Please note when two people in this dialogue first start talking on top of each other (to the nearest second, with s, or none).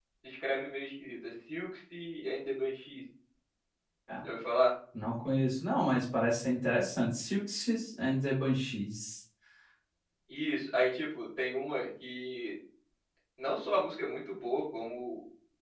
none